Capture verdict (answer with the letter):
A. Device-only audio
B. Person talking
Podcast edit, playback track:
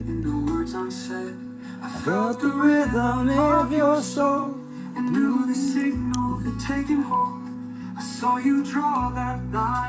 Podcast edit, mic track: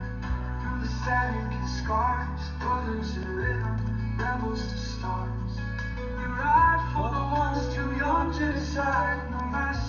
B